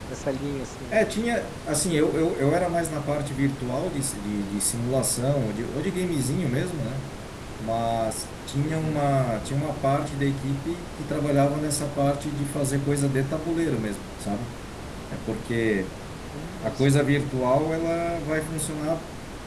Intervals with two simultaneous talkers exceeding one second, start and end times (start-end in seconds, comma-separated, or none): none